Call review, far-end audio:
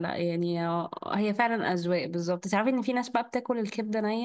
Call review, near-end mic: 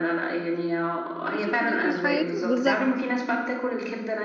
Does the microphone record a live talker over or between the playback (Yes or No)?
Yes